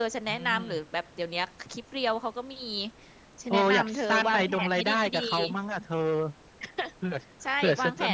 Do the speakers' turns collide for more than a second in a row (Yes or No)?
Yes